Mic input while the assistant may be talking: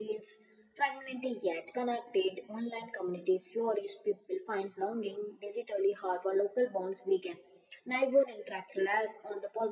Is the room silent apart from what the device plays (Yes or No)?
Yes